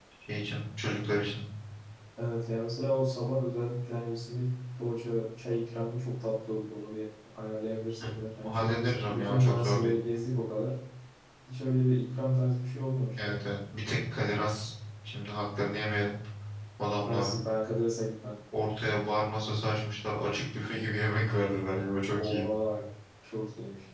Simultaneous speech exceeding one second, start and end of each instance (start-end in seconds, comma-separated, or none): 8.4-9.9